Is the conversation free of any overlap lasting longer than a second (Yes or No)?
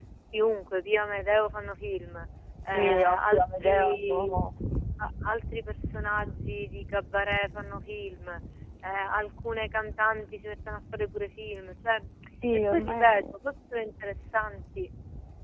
No